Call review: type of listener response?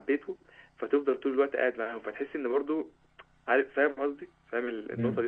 taking over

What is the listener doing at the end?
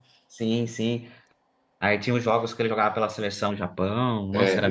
taking over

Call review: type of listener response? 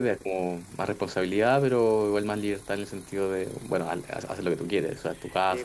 taking over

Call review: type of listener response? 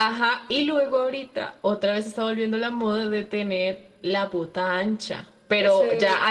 listening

